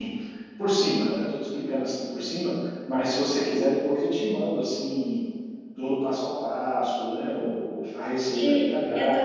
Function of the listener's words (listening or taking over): taking over